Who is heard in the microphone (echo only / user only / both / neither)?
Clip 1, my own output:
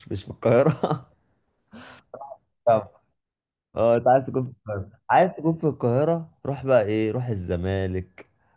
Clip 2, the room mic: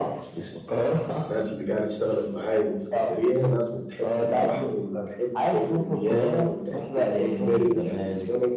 both